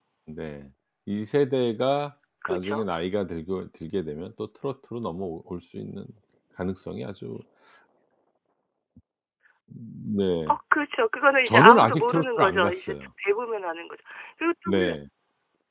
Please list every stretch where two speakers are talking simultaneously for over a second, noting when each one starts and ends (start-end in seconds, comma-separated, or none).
11.5-12.9